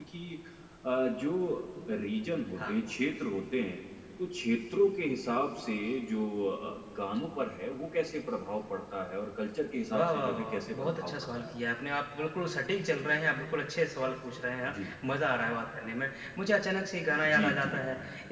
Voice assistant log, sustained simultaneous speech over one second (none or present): present